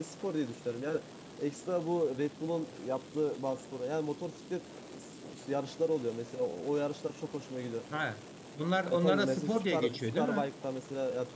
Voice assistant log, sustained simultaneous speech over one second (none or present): present